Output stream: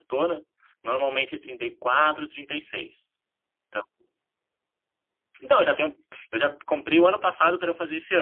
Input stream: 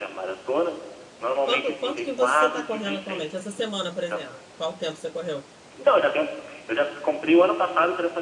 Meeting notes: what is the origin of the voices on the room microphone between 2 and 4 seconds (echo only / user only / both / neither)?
both